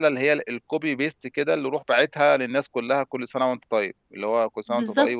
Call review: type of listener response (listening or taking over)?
taking over